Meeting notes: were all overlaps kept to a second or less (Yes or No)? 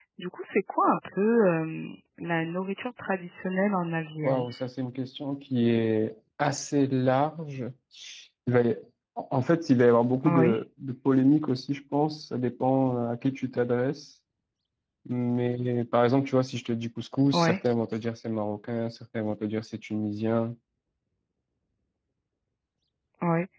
Yes